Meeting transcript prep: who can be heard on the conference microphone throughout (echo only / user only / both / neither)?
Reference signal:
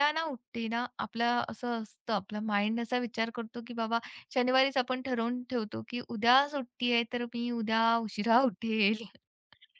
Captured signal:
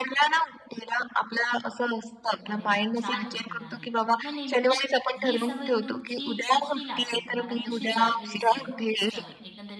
both